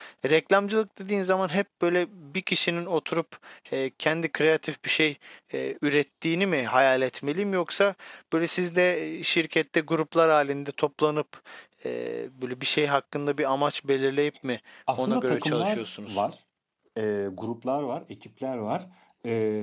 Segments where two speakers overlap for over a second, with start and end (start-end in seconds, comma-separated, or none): 15.0-16.2